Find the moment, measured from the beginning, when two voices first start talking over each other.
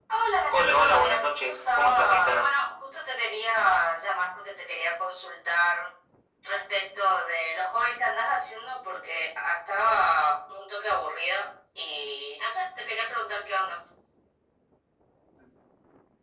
0.5 s

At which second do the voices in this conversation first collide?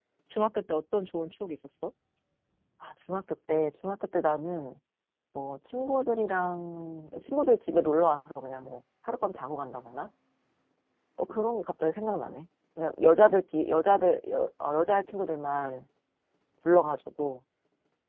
none

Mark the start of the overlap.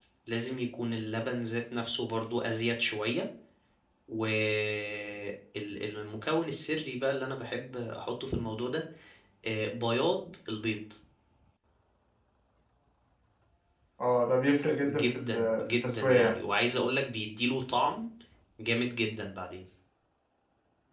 14.9 s

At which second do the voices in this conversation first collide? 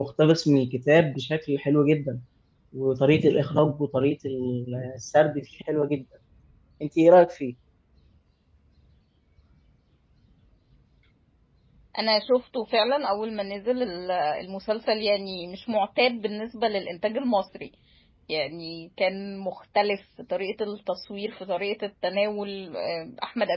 none

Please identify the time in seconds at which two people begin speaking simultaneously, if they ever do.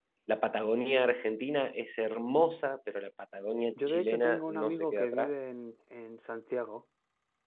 3.8 s

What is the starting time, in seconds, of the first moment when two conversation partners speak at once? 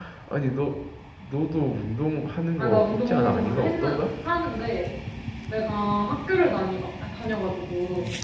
2.6 s

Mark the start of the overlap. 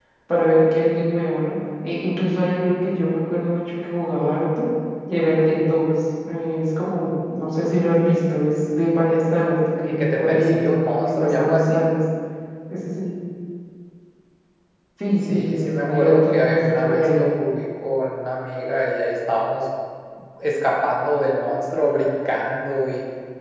9.8 s

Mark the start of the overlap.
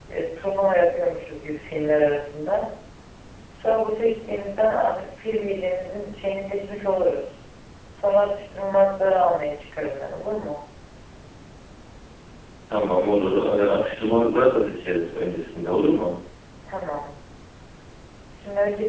none

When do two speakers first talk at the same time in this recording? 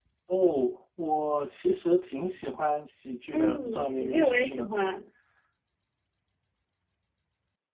3.3 s

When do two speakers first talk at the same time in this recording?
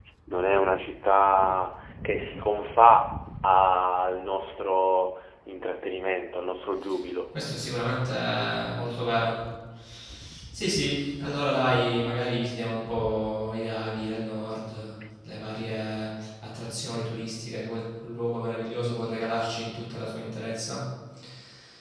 none

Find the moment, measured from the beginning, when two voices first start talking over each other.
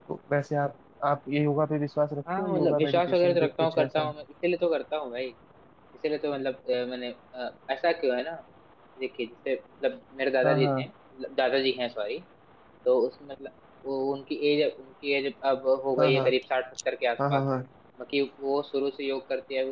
2.4 s

